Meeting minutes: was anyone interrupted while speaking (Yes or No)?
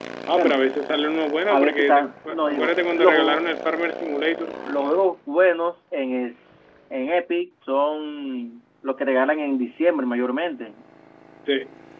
Yes